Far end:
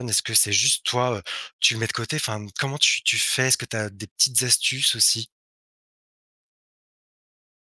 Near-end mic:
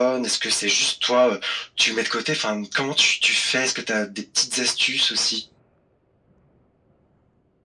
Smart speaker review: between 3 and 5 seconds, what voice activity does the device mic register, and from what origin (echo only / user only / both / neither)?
echo only